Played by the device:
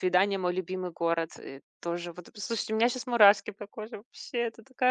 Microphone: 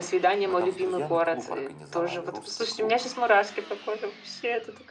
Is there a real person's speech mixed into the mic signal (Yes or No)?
Yes